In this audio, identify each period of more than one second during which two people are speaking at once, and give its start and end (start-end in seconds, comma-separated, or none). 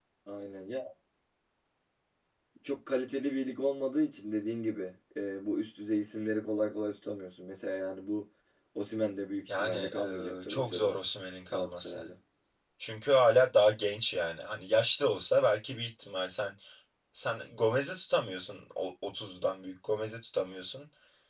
9.5-11.0